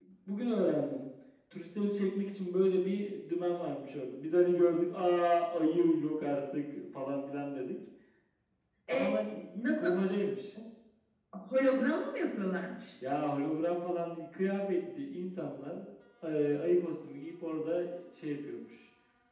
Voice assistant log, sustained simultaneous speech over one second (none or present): none